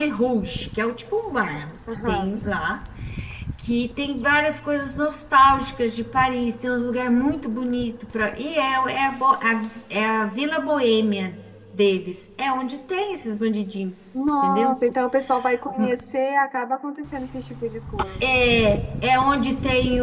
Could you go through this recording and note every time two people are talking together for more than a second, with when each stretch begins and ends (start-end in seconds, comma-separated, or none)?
none